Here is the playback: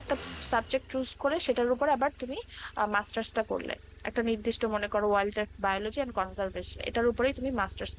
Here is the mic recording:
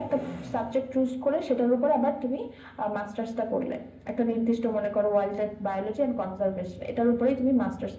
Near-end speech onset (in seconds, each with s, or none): none